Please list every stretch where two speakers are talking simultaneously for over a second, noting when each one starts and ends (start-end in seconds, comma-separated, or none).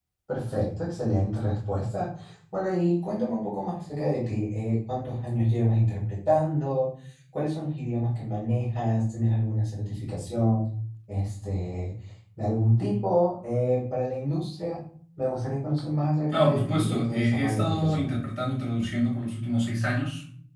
16.3-18.1